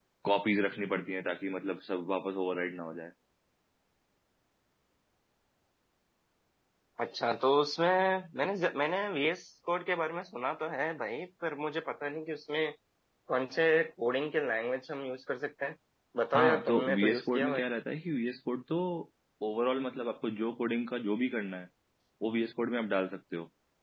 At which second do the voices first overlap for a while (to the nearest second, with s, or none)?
16 s